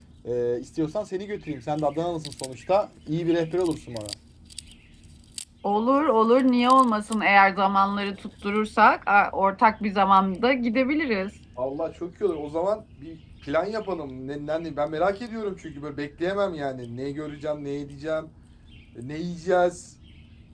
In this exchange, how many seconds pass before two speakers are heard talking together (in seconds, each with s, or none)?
none